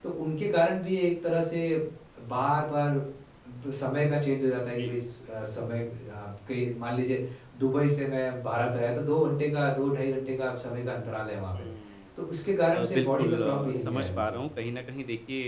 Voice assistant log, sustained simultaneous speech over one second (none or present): present